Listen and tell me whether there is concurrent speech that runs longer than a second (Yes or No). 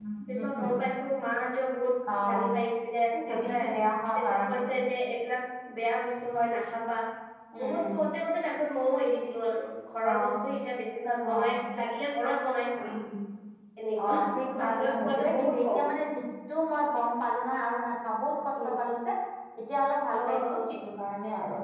Yes